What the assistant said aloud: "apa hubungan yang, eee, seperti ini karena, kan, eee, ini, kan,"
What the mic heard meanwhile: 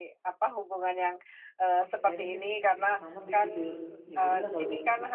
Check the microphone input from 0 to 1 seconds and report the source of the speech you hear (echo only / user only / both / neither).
echo only